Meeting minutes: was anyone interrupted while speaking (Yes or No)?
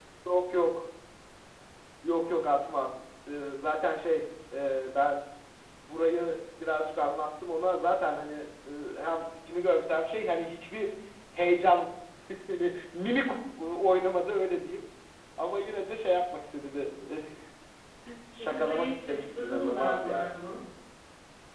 Yes